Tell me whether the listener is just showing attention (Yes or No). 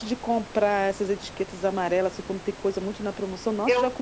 Yes